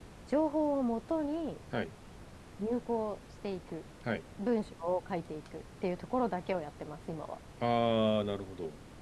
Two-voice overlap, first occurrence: none

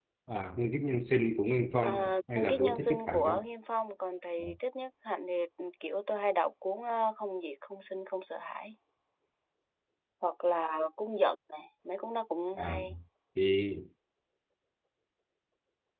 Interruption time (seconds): 2 s

